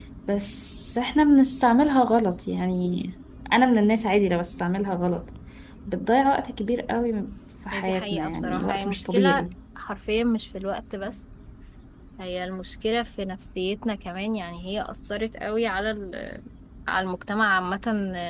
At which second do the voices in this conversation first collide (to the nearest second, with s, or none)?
8 s